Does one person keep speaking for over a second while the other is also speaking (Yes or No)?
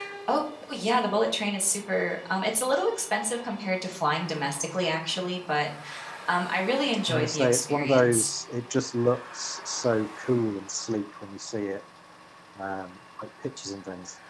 Yes